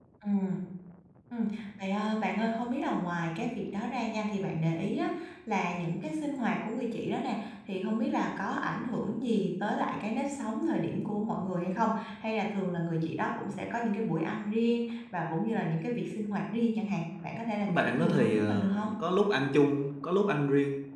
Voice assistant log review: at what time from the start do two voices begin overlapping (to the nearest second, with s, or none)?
18 s